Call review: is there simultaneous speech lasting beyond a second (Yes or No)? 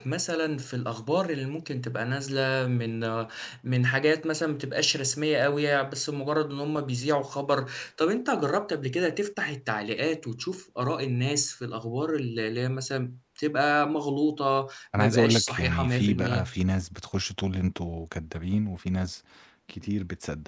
Yes